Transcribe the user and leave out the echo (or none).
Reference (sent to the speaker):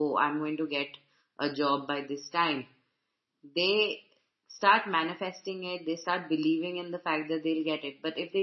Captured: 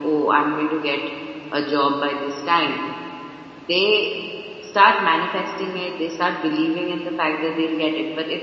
none